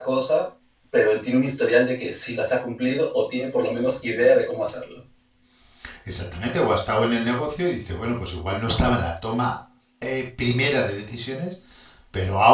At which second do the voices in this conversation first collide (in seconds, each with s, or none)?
none